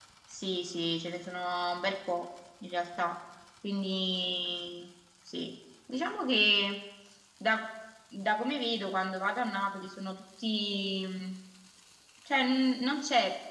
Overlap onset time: none

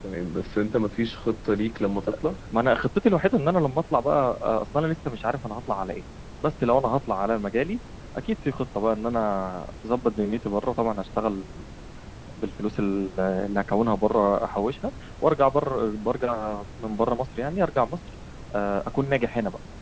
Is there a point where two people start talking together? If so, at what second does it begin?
none

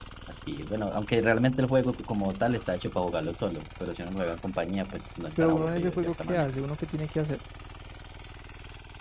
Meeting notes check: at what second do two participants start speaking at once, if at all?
5 s

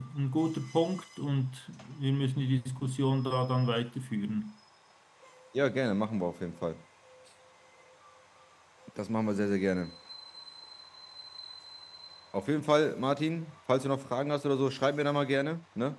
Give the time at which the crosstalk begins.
none

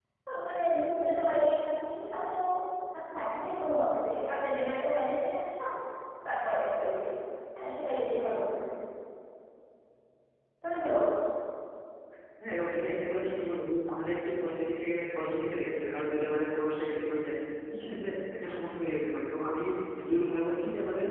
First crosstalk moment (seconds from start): none

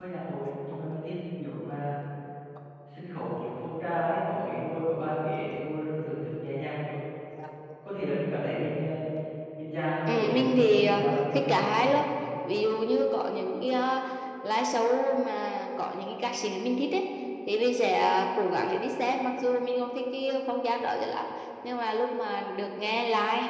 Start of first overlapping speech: 10 s

